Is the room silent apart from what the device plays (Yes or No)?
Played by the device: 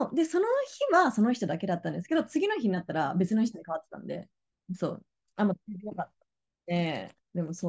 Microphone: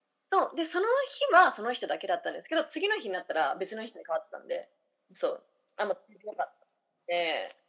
Yes